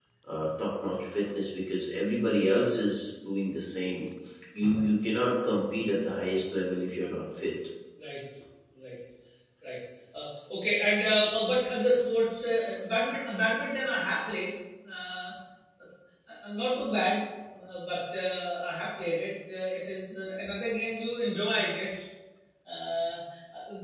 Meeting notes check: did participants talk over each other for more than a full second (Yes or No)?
No